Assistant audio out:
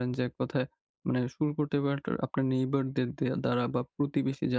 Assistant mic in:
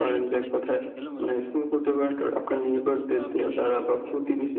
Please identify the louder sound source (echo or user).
echo